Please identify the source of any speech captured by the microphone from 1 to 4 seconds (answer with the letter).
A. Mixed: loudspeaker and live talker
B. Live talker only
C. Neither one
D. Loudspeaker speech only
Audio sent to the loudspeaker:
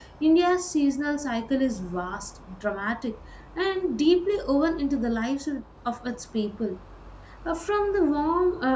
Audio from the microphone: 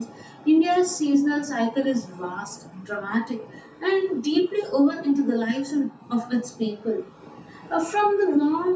D